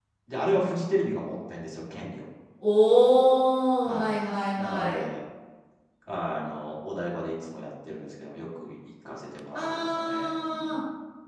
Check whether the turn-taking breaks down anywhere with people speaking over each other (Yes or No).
Yes